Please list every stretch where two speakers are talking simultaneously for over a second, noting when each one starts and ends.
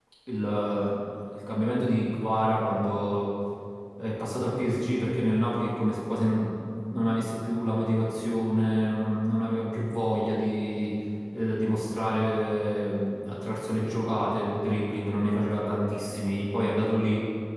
none

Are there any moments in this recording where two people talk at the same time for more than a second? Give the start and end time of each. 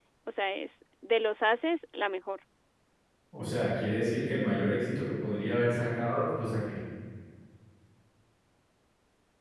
none

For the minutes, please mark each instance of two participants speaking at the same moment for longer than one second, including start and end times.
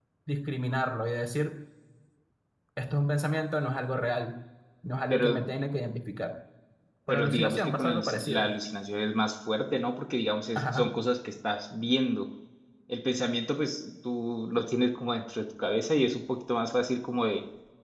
7.1-8.5

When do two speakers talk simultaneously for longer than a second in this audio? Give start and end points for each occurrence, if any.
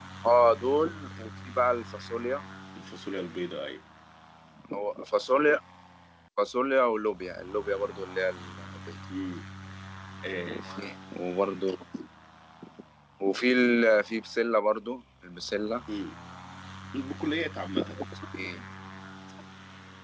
none

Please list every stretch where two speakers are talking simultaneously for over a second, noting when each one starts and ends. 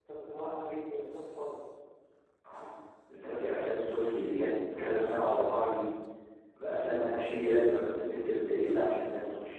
none

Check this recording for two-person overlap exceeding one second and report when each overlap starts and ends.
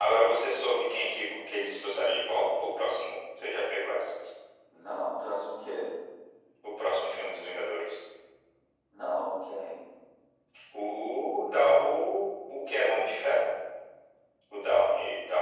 none

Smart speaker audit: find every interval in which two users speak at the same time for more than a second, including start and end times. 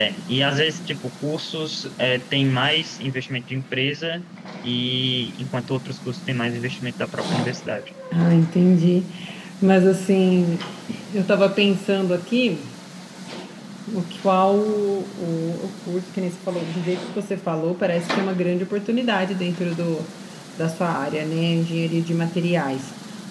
none

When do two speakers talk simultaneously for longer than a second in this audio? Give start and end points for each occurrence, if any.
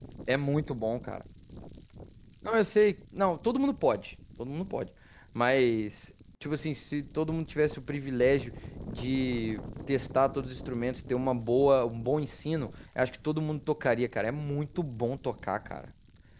none

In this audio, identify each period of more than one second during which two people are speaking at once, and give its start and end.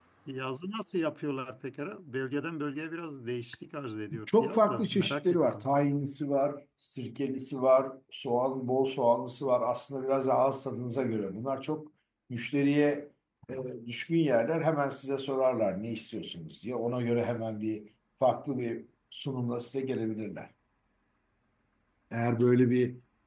4.4-5.7

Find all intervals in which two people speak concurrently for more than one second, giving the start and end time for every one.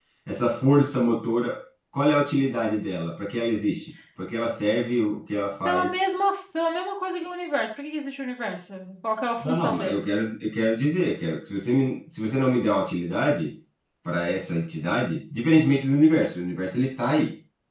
none

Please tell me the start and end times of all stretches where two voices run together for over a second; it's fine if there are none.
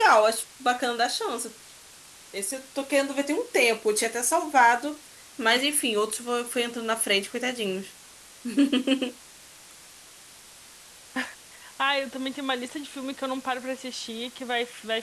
none

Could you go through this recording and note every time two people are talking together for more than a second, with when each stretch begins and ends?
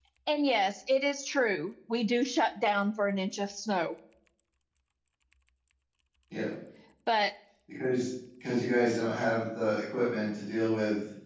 none

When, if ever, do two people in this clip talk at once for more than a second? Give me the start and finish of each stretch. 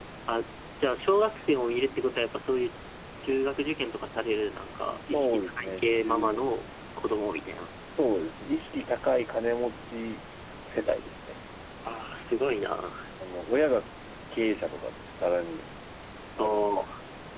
5.1-6.4

